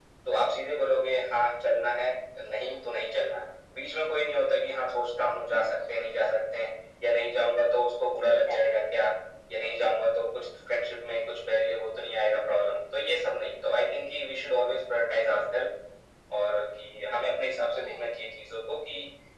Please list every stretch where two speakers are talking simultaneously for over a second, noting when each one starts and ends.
7.6-8.8

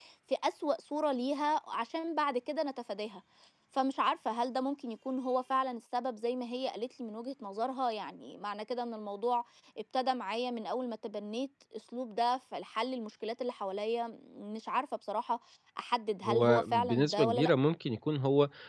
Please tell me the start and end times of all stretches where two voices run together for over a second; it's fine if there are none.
16.2-17.5

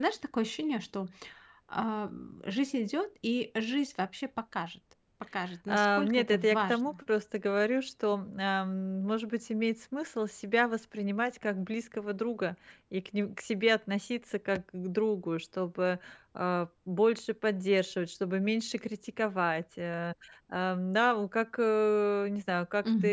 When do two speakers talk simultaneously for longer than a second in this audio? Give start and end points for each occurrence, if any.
5.7-6.9

